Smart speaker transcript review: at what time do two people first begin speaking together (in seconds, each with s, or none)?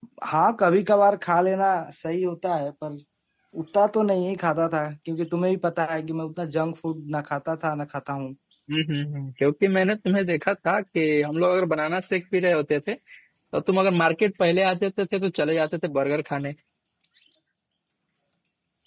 none